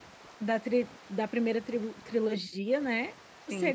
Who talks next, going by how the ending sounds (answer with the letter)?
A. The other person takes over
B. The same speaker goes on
B